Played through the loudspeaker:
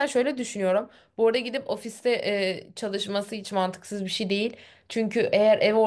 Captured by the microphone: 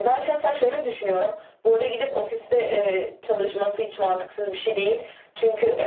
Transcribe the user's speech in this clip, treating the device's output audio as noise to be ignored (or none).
none